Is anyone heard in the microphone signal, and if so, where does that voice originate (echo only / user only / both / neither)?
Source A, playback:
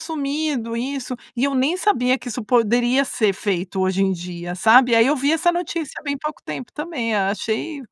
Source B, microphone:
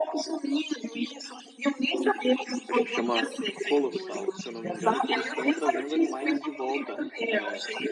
both